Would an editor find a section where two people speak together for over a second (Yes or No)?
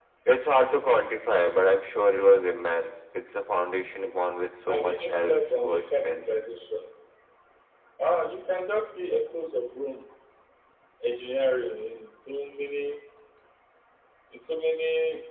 Yes